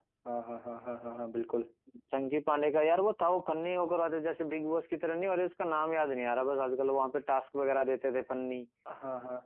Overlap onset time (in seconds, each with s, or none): none